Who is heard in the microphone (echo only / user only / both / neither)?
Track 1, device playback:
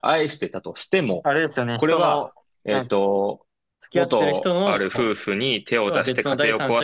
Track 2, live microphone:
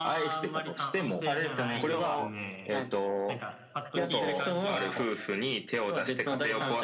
both